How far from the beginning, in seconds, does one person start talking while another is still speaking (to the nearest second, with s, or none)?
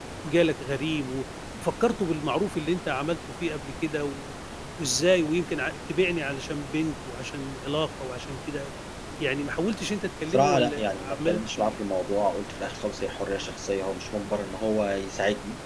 10 s